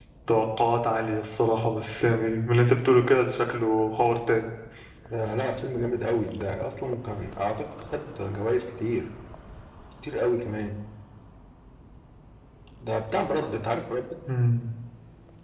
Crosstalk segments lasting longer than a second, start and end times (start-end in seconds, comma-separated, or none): none